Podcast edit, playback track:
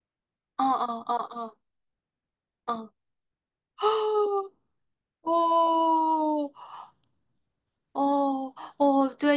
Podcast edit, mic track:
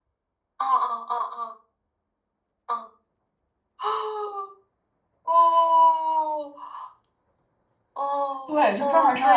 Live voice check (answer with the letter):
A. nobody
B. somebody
B